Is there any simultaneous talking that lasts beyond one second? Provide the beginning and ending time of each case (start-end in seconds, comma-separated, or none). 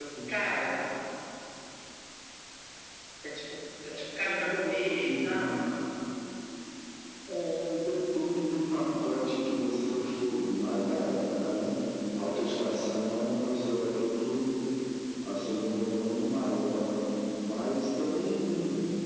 4.2-5.5